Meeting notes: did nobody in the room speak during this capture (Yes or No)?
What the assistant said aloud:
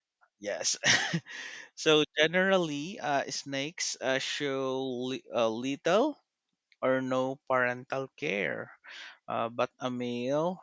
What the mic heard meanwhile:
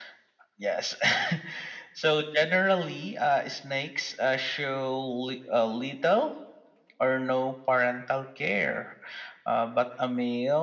Yes